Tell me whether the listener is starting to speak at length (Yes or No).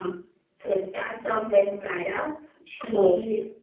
No